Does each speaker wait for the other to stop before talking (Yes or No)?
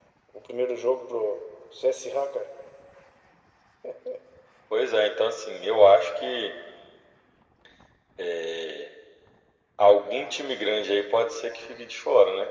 Yes